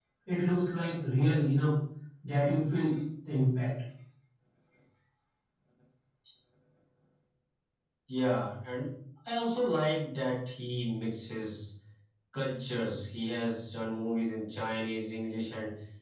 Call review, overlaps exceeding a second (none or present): none